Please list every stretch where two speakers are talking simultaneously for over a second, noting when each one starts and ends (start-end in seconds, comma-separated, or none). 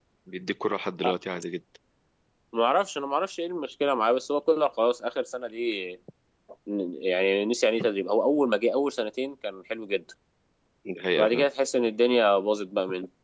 none